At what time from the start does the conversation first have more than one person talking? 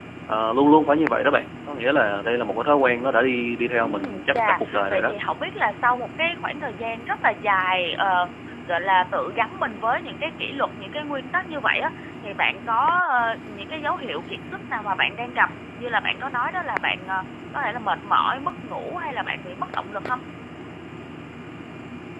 3.8 s

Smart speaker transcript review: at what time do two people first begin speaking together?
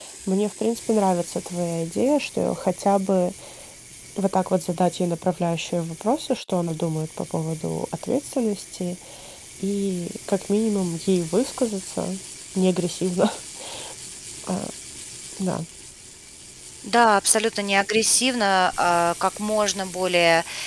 none

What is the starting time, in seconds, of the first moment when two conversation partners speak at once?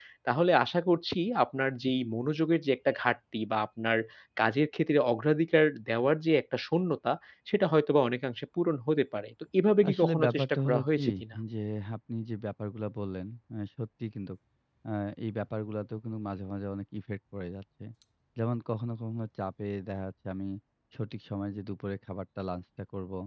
9.8 s

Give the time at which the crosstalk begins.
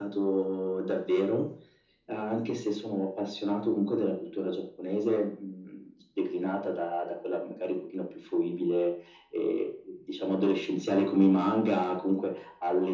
none

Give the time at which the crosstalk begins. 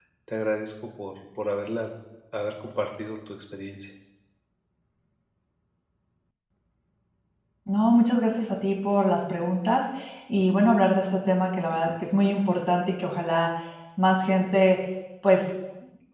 none

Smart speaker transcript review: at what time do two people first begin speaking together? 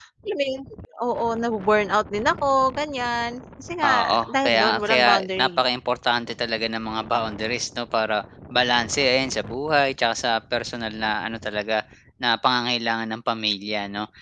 3.8 s

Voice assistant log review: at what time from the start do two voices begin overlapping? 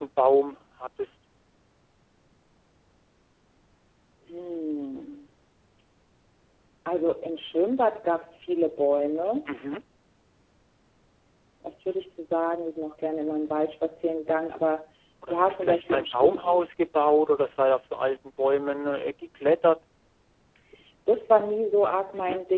15.3 s

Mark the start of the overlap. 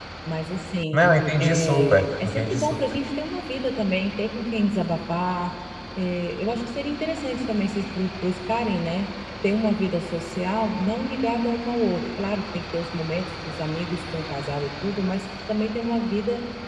1.4 s

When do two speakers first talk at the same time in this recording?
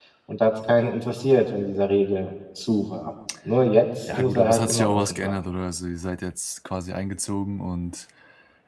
4.1 s

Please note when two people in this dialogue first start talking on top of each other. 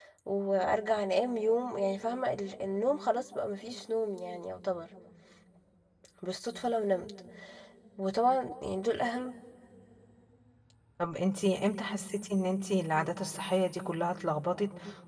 none

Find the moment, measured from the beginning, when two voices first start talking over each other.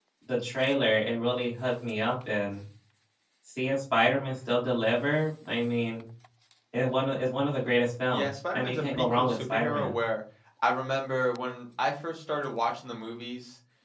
8.1 s

